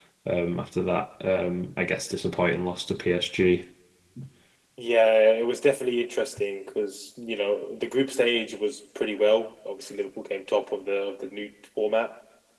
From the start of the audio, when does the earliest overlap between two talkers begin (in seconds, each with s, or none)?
none